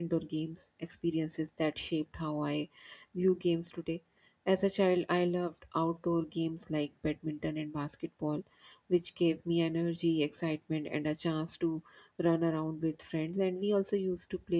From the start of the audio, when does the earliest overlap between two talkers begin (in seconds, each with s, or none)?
none